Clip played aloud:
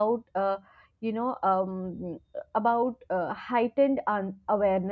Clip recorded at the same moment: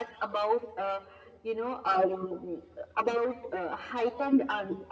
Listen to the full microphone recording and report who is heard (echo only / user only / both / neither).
echo only